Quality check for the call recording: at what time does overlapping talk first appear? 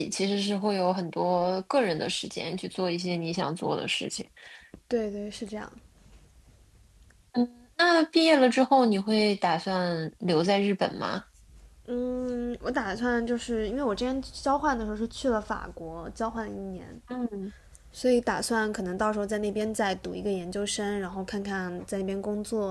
none

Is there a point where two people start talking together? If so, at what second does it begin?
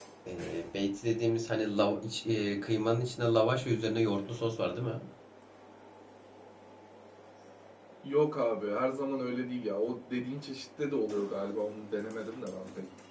none

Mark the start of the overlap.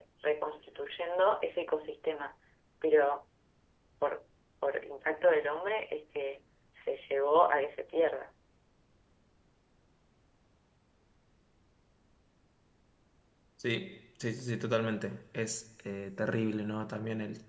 none

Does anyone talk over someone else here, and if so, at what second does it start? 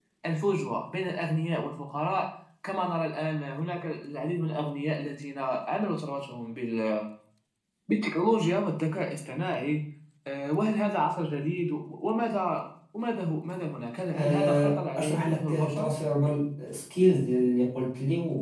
14.1 s

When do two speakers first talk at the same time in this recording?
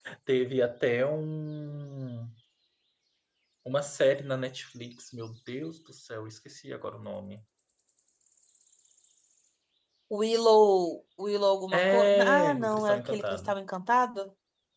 11.7 s

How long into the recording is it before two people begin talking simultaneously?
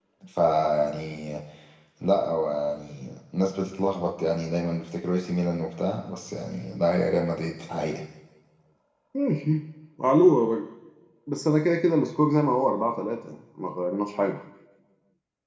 none

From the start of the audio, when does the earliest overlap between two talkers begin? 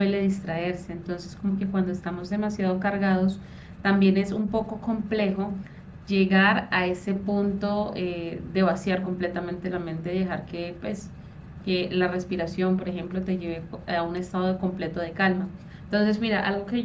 none

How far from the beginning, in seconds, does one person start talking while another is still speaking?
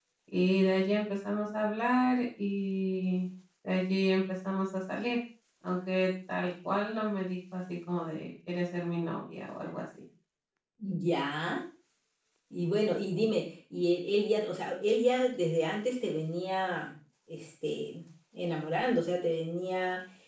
none

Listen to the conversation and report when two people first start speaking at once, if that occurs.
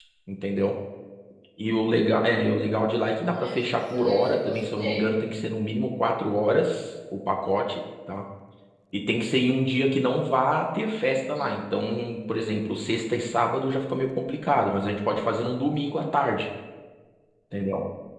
3.2 s

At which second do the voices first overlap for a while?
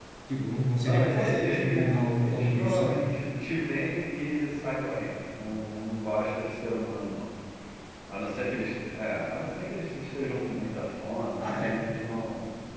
0.8 s

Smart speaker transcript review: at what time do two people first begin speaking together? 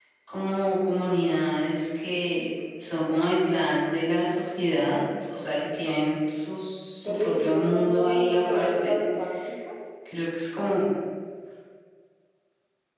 7.0 s

